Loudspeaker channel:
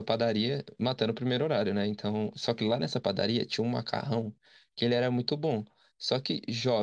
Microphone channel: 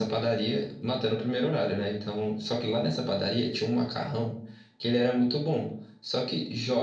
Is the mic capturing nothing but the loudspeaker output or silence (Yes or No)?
Yes